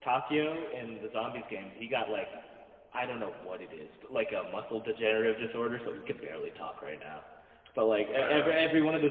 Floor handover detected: No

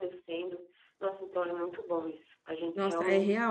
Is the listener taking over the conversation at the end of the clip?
Yes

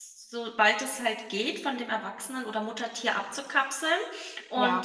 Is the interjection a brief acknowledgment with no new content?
Yes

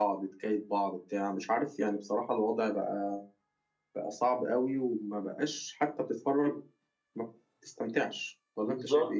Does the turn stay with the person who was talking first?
No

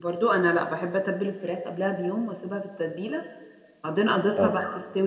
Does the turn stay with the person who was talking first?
Yes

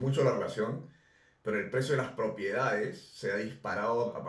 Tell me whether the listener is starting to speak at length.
No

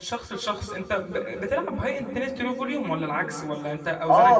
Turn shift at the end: Yes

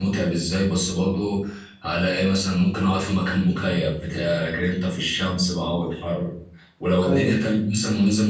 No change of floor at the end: Yes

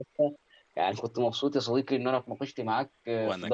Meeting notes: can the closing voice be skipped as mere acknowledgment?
Yes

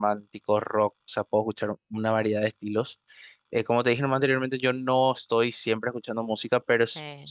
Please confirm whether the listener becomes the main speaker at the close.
No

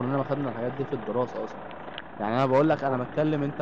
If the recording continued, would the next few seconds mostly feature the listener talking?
No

